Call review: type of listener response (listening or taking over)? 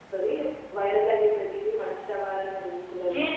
taking over